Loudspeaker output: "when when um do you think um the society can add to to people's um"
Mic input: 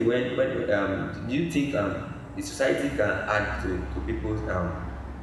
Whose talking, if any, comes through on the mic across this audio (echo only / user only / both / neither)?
echo only